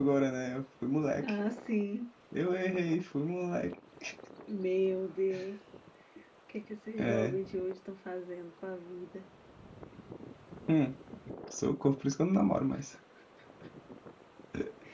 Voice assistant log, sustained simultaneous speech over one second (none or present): none